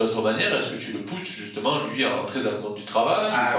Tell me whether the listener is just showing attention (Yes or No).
No